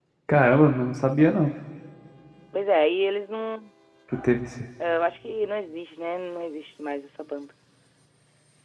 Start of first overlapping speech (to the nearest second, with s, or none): none